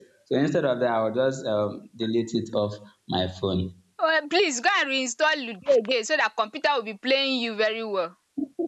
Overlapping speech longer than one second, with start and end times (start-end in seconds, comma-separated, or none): none